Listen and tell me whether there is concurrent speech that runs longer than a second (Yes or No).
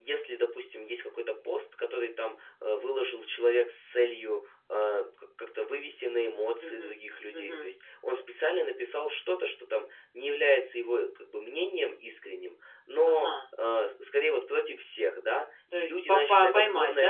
Yes